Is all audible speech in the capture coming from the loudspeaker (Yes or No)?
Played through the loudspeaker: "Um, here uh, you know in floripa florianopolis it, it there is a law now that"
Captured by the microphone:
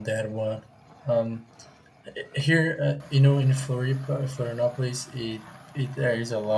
Yes